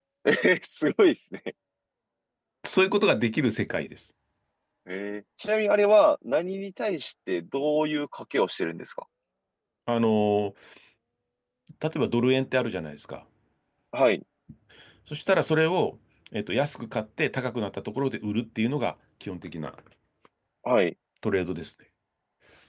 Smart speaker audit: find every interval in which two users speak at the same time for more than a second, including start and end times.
none

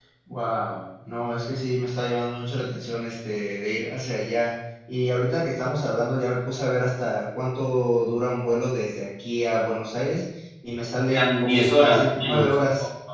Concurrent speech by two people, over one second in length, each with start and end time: 11.1-12.5

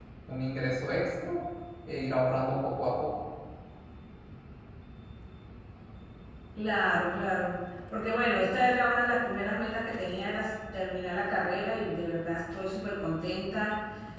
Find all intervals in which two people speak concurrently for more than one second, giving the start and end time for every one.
none

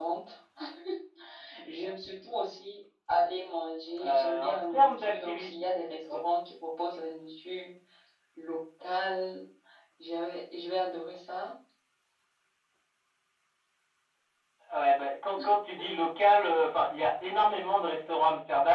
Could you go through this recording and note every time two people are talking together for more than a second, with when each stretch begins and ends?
4.0-5.6

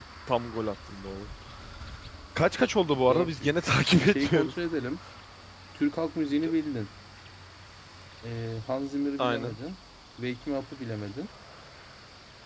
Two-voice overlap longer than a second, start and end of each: 3.1-4.5

